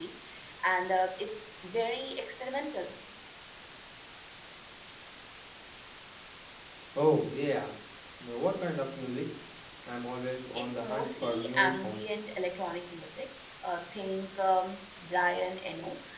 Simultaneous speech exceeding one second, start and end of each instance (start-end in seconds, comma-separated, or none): 10.5-12.0